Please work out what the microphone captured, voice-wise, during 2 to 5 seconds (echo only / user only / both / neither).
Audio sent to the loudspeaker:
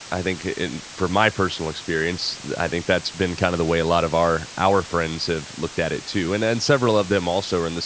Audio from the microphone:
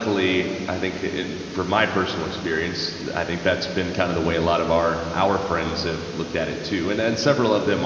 echo only